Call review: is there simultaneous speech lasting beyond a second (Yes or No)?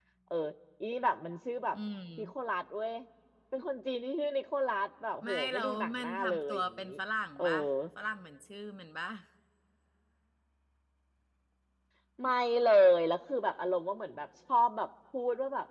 Yes